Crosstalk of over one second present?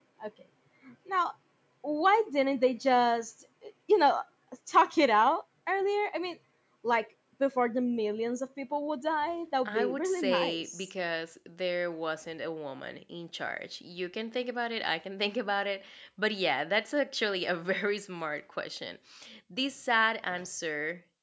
Yes, from 9.7 s

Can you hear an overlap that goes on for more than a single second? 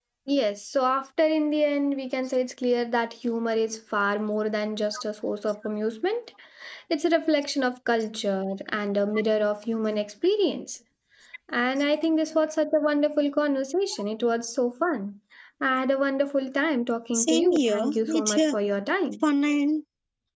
Yes, from 17.1 s

